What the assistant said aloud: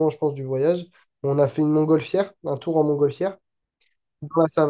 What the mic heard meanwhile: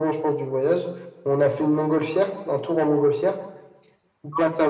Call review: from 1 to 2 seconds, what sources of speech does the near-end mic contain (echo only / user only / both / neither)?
echo only